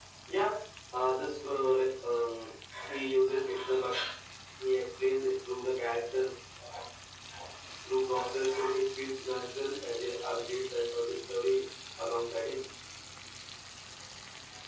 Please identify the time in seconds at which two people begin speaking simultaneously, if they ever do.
none

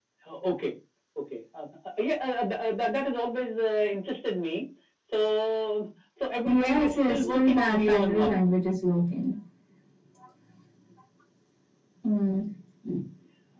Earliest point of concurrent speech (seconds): 6.4 s

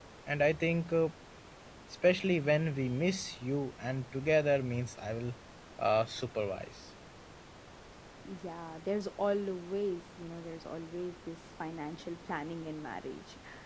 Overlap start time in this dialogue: none

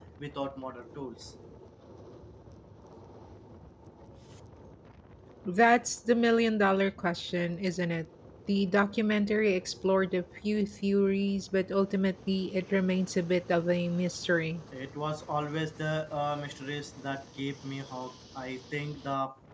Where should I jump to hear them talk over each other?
none

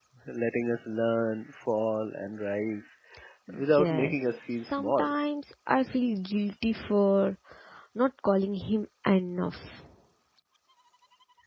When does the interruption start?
3.8 s

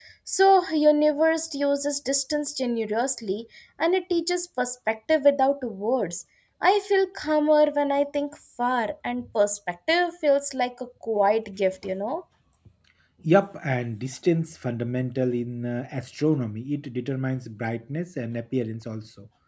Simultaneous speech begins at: none

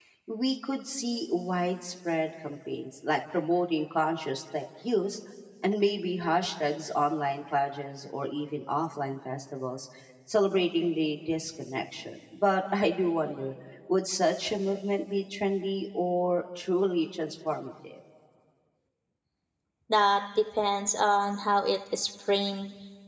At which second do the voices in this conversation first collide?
none

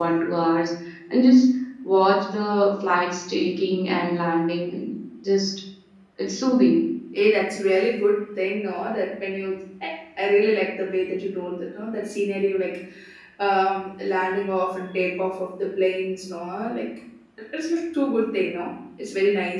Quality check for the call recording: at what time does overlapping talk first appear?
none

